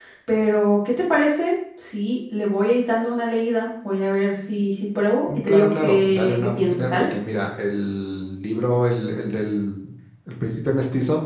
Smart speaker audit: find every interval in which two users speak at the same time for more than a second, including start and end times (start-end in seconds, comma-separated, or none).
5.3-7.1